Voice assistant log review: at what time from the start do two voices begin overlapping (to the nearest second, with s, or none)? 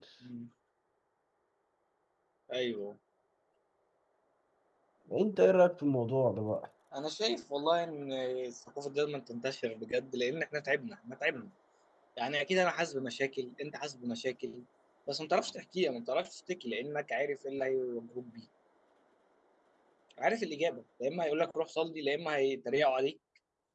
none